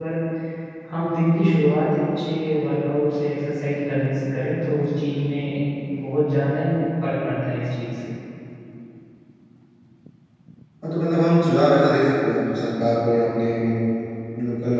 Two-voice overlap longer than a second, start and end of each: none

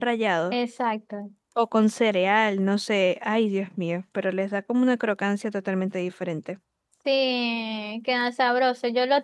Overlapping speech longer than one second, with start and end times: none

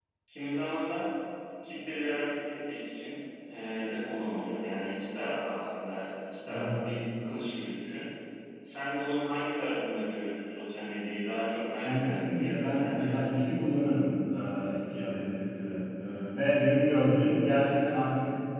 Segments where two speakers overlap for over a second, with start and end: 11.8-13.1

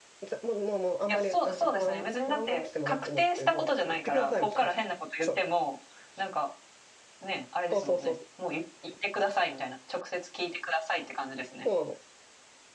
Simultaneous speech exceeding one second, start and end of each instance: 1.1-4.7

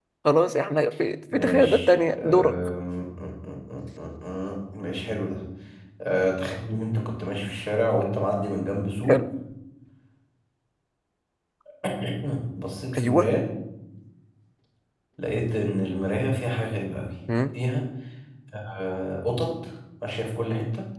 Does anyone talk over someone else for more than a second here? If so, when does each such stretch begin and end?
1.3-2.5

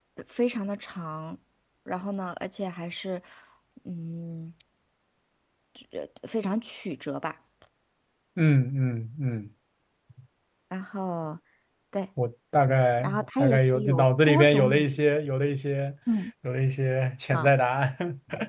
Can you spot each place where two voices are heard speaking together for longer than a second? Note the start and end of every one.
13.0-15.2

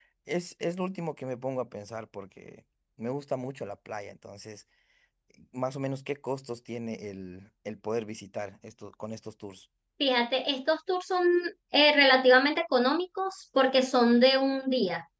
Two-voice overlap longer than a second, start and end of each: none

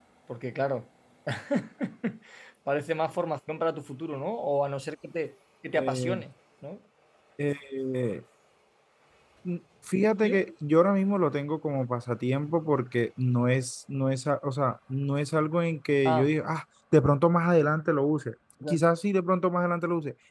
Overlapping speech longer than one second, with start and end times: none

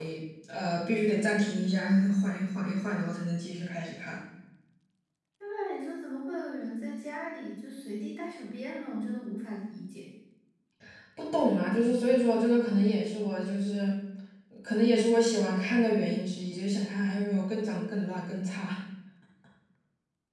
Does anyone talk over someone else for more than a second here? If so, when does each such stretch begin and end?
none

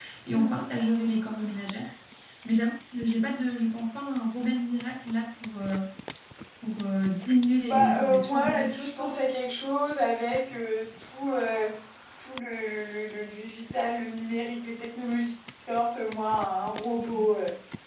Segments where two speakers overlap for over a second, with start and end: 7.6-9.1

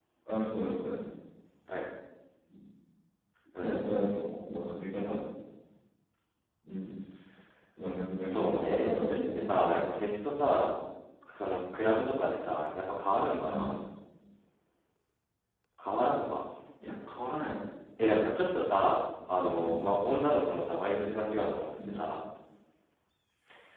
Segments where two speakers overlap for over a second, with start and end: 8.2-9.8

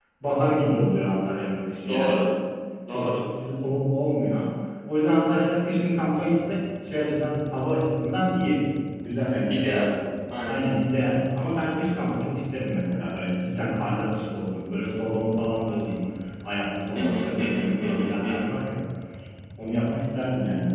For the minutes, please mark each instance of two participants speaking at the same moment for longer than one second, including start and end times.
17.0-18.5

